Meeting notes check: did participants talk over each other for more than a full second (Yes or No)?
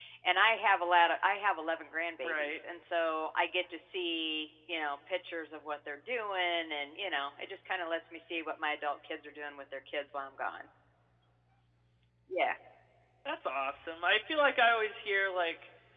No